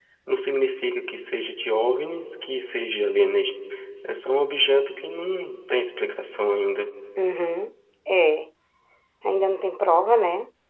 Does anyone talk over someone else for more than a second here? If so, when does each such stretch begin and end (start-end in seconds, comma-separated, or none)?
none